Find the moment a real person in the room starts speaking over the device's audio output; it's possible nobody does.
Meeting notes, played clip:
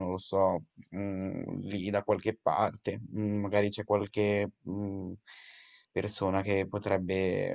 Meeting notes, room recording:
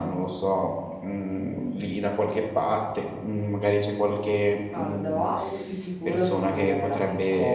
4.7 s

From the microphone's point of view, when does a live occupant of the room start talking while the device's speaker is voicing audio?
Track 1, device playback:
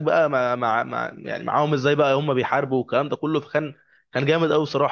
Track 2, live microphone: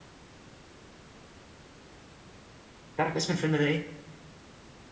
3.0 s

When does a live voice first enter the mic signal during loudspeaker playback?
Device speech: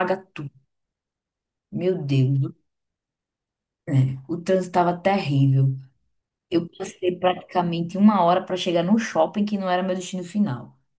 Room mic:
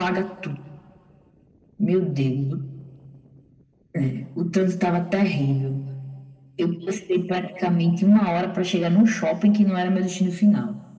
none

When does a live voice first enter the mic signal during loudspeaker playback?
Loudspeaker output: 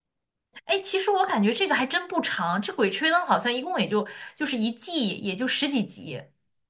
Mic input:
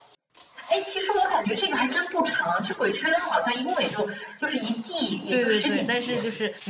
5.3 s

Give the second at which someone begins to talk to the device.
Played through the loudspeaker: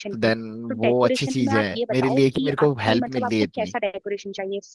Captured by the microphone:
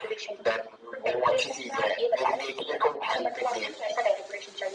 none

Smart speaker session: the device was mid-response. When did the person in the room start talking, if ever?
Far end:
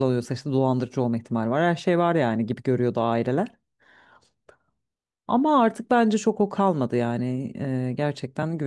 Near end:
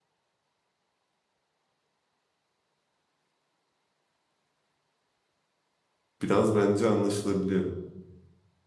6.2 s

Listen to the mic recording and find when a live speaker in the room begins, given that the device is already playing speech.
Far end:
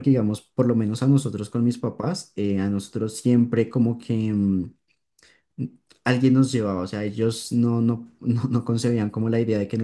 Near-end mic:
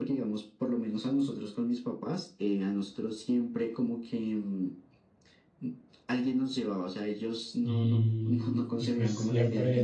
7.6 s

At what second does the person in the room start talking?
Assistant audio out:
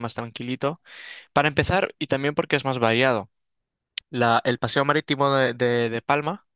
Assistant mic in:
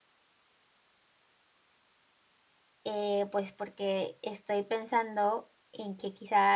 2.9 s

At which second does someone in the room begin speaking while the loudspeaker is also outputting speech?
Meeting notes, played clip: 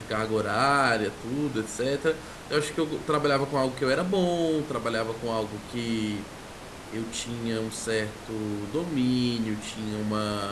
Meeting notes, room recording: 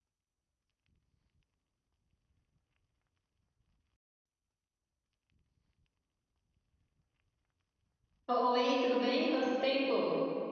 8.3 s

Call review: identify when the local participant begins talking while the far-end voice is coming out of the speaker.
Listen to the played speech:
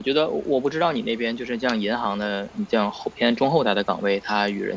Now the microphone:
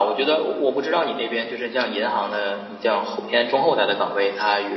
none

